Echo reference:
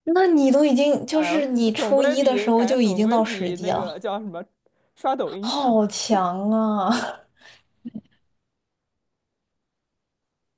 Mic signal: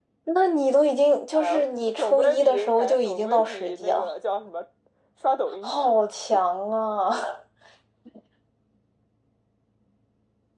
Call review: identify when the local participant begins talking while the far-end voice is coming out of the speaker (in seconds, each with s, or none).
none